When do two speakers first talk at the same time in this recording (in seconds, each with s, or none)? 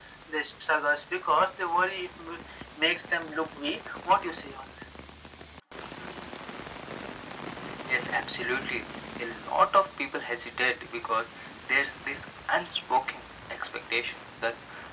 none